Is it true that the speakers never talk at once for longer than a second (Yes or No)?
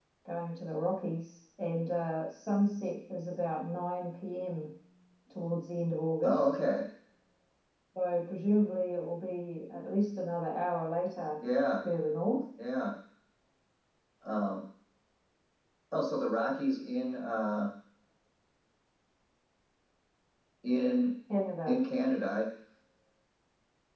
Yes